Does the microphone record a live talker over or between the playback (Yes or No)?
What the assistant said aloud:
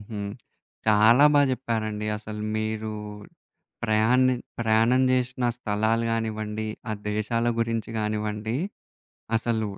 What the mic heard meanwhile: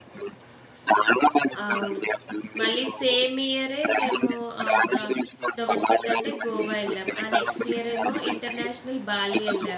Yes